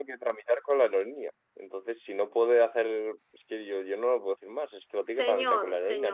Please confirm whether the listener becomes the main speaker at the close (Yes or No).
Yes